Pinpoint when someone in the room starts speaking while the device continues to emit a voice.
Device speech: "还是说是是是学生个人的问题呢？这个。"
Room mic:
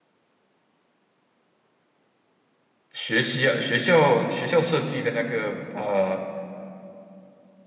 2.9 s

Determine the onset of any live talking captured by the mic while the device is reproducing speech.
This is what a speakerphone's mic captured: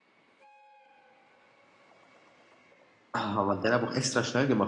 3.1 s

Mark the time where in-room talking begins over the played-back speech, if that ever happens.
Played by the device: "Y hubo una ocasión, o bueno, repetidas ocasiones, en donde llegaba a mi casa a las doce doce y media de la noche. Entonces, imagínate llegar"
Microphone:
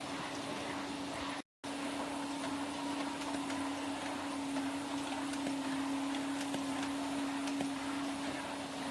none

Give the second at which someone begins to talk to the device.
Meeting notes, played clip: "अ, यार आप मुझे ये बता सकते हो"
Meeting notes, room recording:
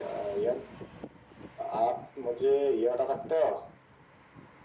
none

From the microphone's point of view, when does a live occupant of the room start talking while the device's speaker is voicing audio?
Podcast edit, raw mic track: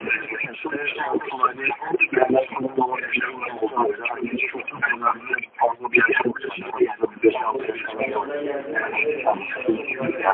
7.8 s

